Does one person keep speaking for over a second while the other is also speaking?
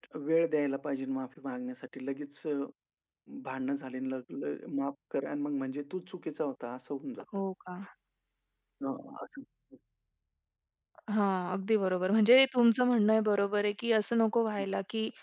No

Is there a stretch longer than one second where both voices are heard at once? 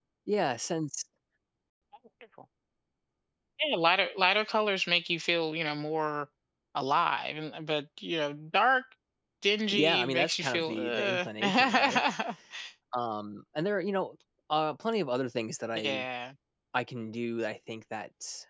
Yes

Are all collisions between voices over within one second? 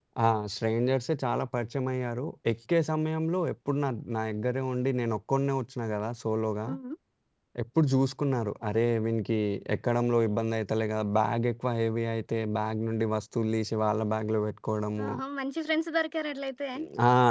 Yes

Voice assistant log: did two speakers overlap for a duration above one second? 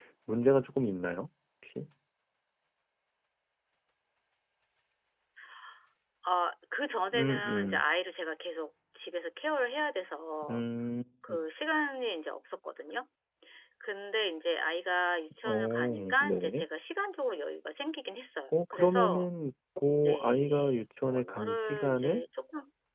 Yes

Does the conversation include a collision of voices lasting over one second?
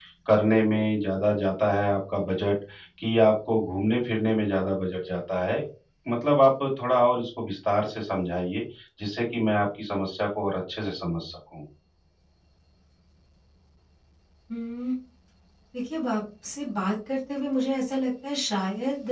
No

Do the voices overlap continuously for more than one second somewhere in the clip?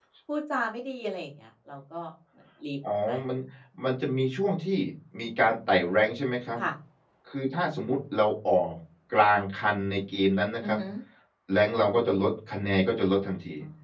No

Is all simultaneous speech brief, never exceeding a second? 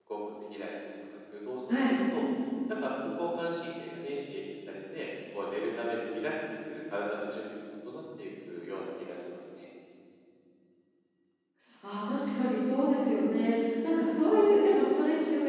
Yes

